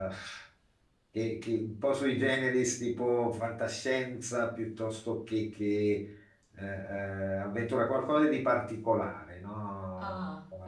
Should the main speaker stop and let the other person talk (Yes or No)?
Yes